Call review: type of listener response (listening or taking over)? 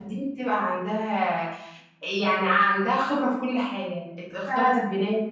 listening